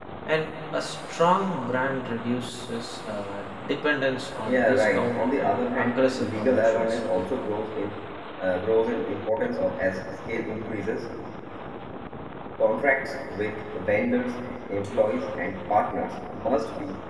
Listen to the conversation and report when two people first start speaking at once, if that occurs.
4.5 s

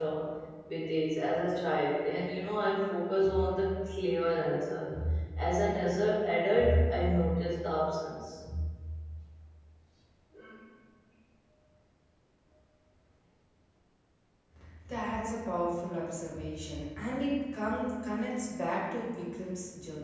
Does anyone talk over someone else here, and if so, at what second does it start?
none

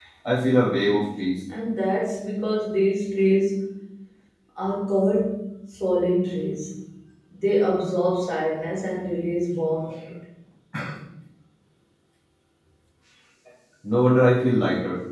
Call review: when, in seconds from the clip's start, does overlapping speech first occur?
none

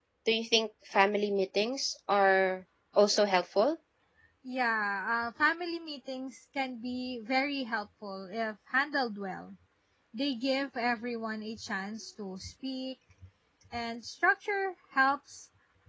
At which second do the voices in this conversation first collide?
none

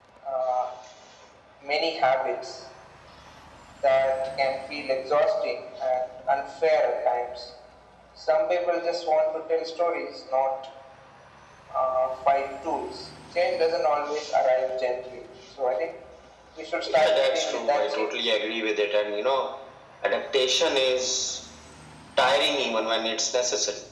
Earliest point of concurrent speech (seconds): 16.9 s

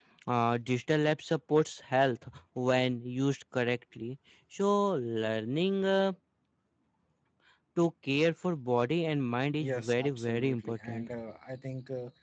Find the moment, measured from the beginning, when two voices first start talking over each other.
9.6 s

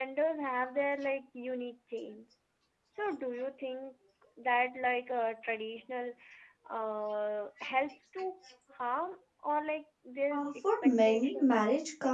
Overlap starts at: 10.3 s

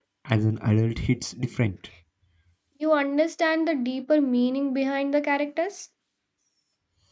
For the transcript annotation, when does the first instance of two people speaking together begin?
none

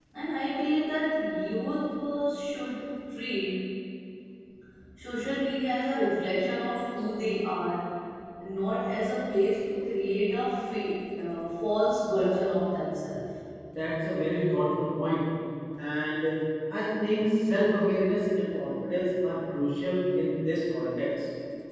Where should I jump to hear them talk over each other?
none

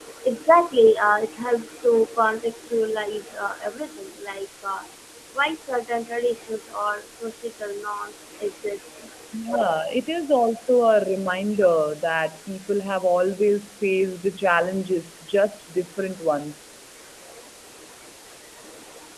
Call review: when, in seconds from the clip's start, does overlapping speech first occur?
none

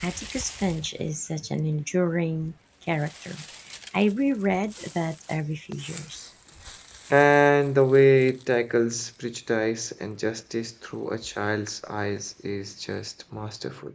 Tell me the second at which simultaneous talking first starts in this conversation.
none

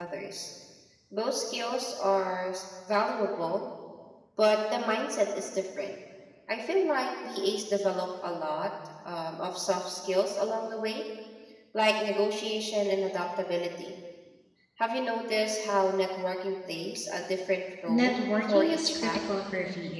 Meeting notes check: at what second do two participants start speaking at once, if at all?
17.9 s

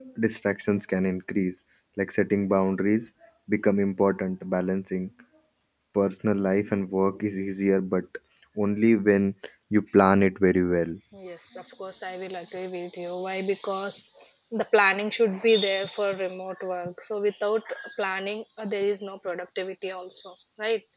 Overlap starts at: none

